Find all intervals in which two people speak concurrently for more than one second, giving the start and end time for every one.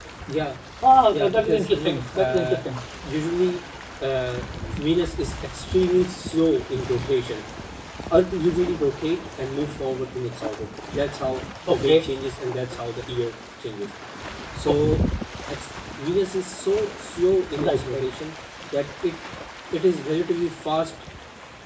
1.1-2.6

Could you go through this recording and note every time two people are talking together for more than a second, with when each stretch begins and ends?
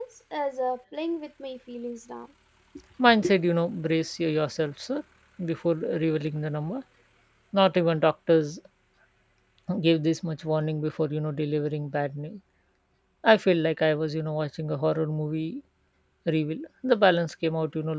none

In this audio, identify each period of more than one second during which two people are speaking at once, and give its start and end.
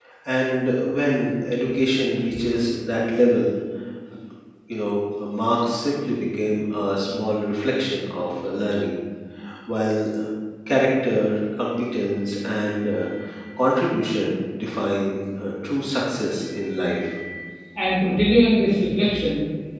none

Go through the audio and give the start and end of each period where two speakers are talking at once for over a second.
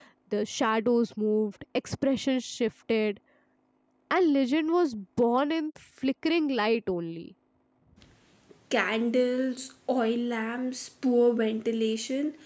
none

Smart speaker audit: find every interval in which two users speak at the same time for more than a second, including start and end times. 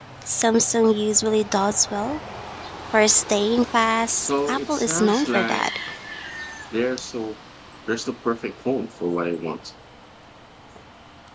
4.2-5.7

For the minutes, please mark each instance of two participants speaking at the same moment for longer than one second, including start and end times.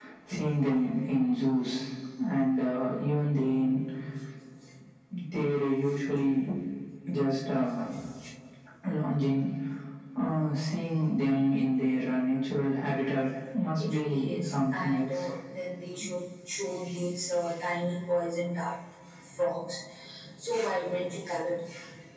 13.8-15.2

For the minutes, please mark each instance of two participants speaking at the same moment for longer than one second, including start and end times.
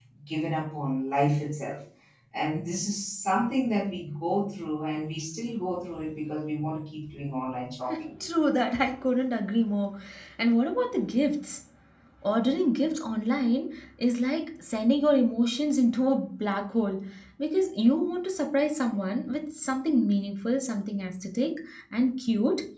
none

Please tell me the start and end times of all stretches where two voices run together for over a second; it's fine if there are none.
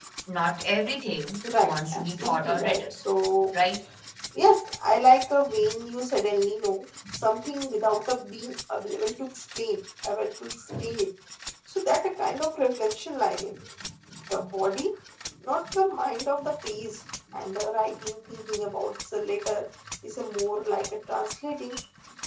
1.6-3.0

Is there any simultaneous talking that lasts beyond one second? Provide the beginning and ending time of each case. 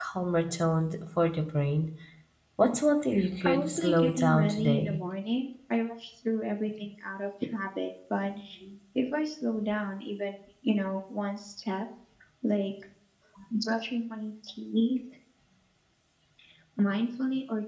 3.4-5.0

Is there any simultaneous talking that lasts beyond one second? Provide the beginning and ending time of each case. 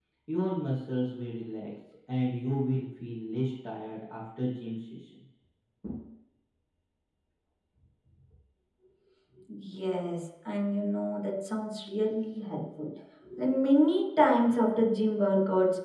none

